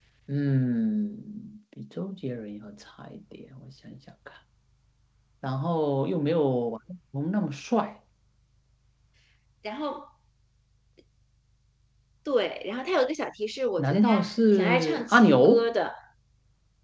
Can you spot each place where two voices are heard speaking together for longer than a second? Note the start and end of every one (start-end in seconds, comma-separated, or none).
13.8-15.6